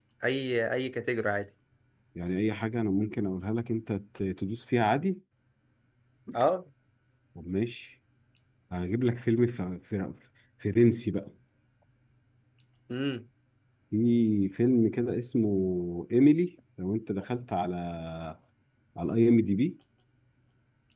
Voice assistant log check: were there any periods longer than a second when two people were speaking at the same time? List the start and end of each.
none

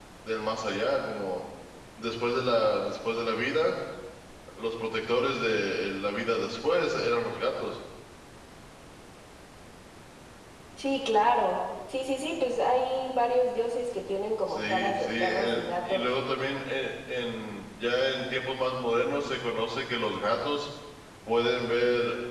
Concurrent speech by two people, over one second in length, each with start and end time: 14.5-16.1

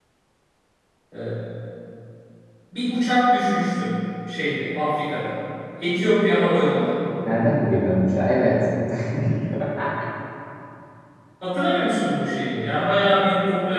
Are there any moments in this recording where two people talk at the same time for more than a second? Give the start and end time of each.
none

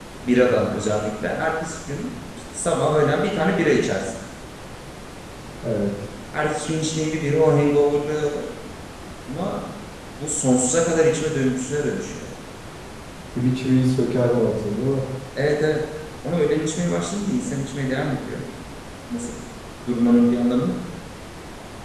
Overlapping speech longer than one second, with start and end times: none

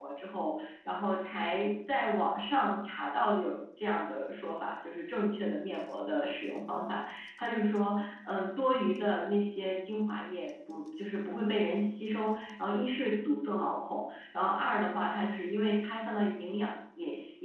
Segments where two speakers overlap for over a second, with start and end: none

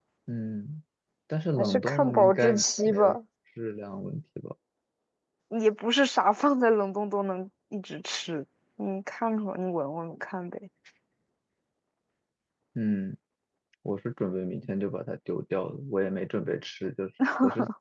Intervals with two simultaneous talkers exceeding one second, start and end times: 1.6-3.2

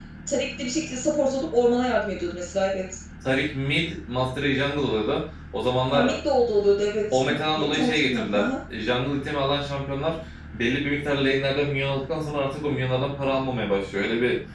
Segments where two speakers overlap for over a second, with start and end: 7.1-8.5

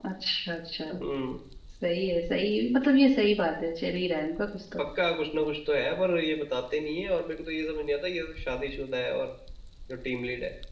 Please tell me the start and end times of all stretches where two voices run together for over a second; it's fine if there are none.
none

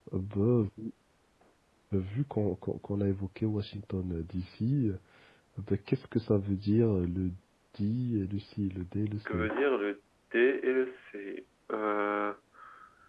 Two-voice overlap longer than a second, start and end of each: none

